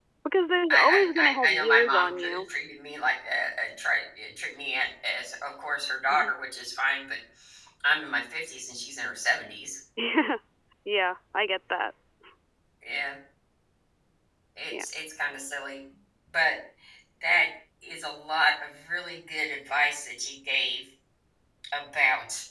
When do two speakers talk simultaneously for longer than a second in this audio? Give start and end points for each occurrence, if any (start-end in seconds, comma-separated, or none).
0.7-2.4